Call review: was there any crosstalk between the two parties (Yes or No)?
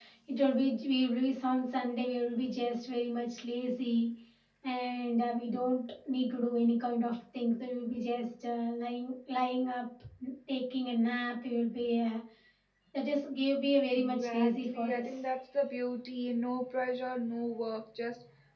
Yes